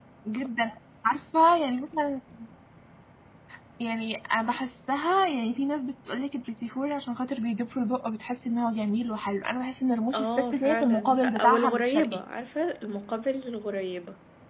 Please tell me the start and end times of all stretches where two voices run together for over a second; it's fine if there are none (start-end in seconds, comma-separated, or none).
10.1-12.1